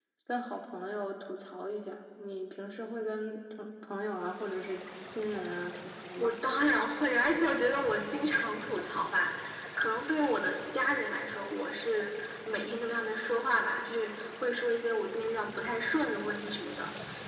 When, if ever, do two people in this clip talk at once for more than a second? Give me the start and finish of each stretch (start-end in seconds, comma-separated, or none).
none